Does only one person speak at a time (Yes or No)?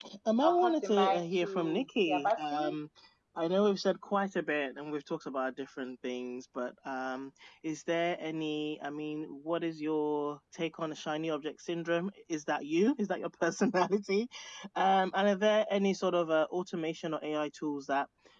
No